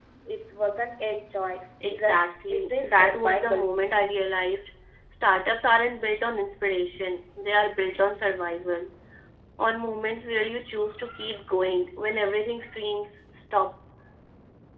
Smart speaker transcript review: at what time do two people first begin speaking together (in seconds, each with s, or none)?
1.8 s